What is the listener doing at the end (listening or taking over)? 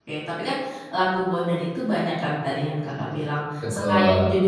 listening